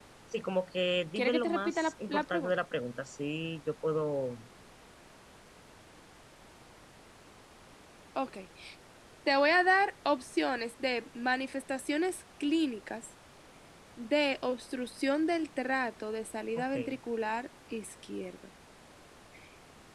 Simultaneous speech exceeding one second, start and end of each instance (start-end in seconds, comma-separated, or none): 1.2-2.5